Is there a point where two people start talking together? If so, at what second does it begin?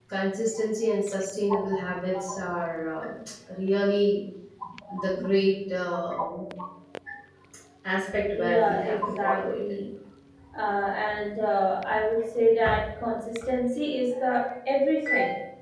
8 s

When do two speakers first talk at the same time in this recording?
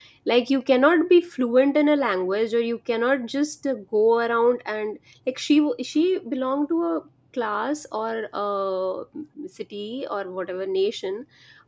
none

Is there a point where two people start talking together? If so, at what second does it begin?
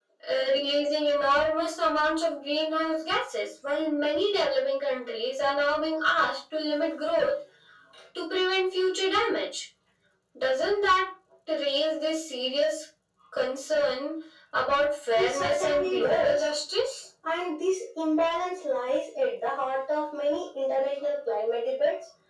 15 s

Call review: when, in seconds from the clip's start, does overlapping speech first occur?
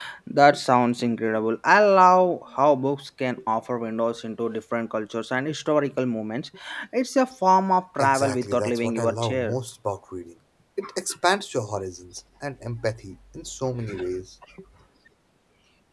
8 s

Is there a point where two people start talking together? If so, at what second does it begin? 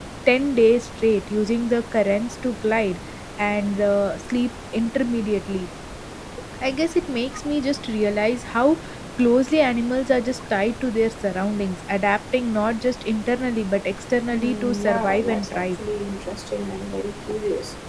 14 s

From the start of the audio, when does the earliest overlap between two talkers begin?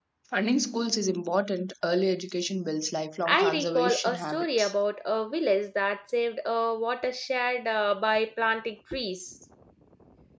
3 s

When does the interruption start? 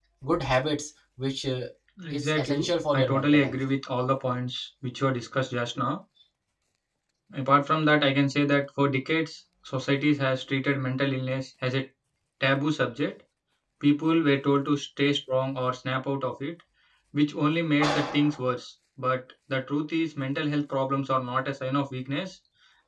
2 s

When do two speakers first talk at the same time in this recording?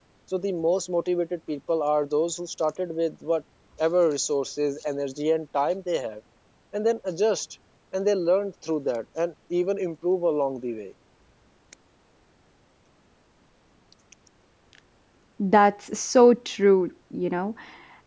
none

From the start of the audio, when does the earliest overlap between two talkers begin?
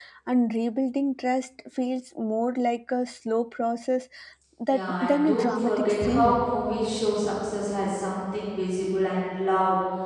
5 s

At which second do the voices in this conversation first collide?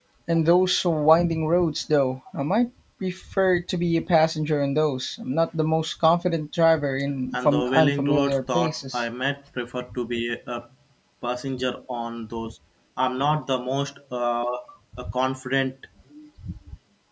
7 s

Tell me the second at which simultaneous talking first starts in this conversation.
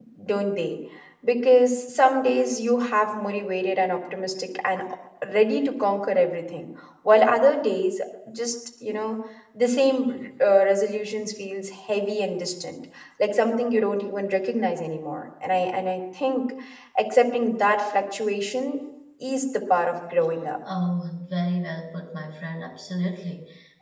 none

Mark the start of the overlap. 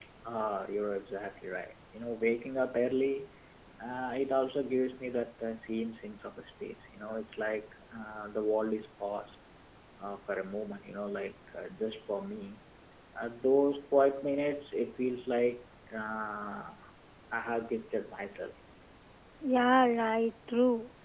none

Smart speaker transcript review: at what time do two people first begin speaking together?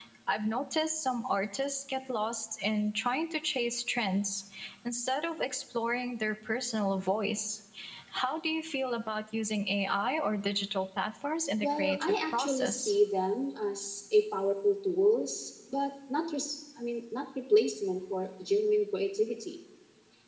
12 s

